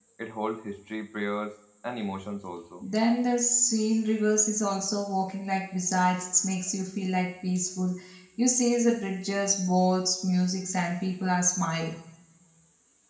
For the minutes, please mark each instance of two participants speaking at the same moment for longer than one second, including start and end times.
none

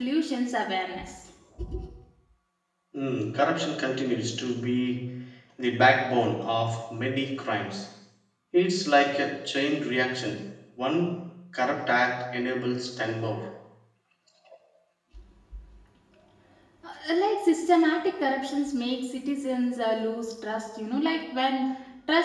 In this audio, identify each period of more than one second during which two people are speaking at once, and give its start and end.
none

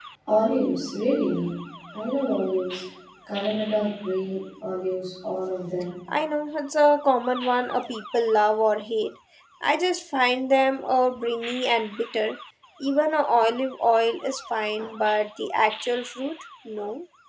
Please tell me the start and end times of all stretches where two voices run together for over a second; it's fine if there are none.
none

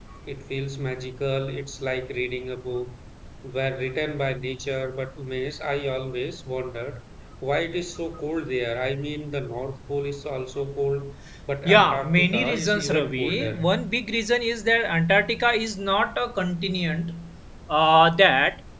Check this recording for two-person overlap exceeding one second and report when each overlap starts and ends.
11.6-13.7

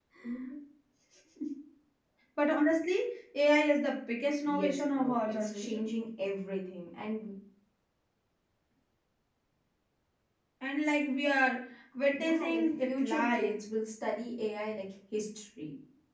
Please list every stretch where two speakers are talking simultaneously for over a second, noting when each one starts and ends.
4.4-5.9, 12.1-13.6

